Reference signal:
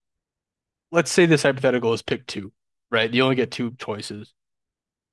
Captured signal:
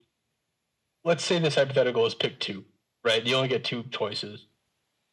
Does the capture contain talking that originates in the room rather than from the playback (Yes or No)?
No